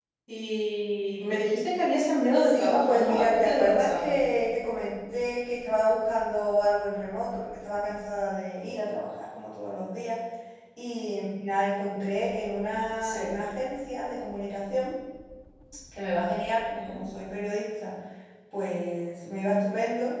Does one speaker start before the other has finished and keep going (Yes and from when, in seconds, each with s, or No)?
Yes, from 2.4 s